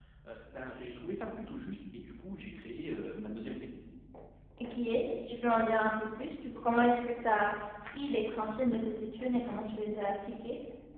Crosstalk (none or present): none